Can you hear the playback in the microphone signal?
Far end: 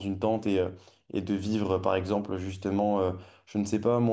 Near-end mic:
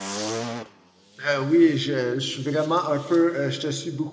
No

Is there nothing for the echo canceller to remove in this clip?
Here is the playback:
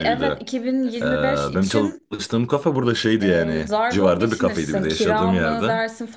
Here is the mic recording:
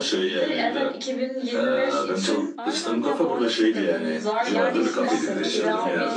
No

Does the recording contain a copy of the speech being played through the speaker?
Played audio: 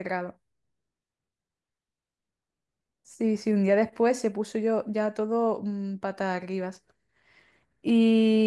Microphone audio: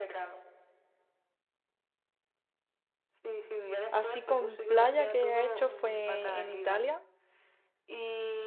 Yes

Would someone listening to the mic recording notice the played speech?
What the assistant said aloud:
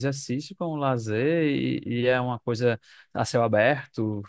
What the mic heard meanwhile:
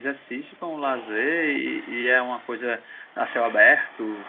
Yes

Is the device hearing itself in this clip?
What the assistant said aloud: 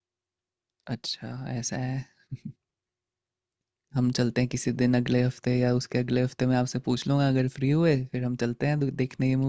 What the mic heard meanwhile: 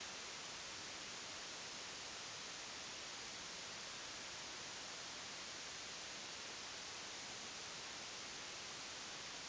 No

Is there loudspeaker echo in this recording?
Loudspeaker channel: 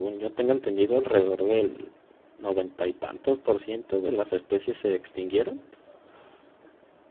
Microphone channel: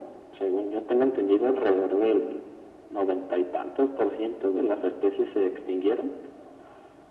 Yes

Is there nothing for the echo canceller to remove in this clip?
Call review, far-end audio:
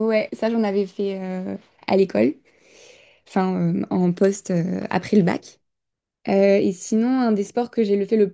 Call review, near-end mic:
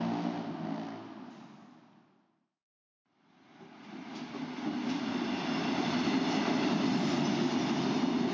Yes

